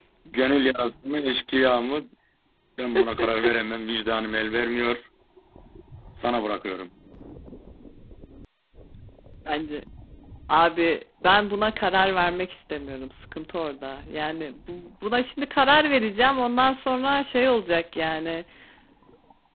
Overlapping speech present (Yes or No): No